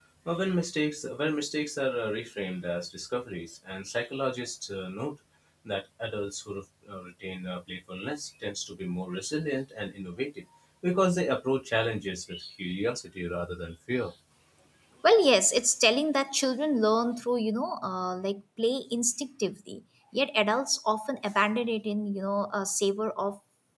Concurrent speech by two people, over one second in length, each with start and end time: none

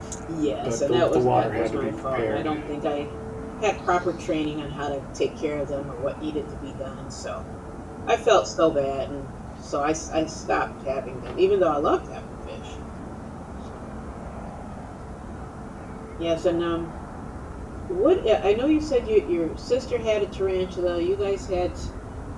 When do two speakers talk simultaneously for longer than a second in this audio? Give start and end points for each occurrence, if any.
0.6-2.5

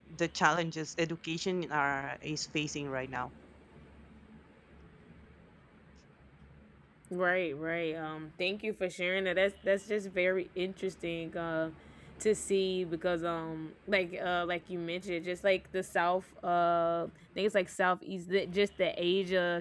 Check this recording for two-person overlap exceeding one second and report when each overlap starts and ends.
none

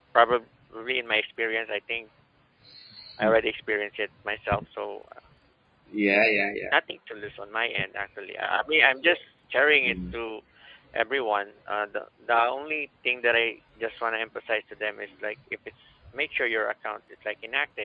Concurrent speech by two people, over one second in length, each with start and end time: none

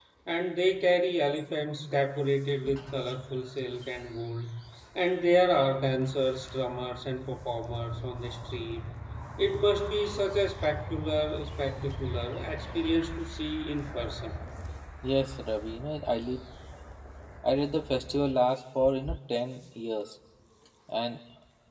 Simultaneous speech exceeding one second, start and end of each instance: none

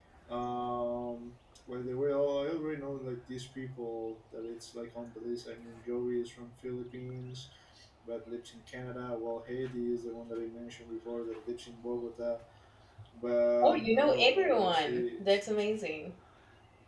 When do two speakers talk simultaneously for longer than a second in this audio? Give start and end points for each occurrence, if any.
13.6-15.2

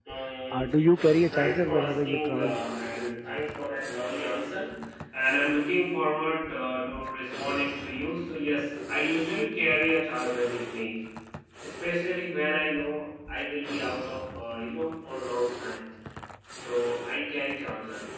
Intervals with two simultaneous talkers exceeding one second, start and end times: 1.3-2.6

